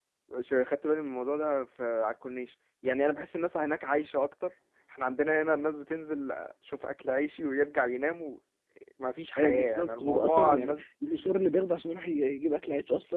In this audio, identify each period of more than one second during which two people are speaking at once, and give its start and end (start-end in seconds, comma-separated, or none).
9.4-10.8